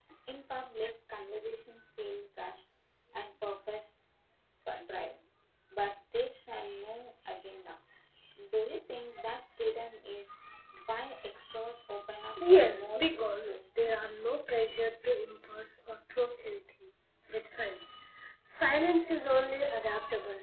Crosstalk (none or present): present